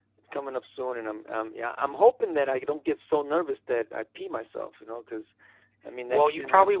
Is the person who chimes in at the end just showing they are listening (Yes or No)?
No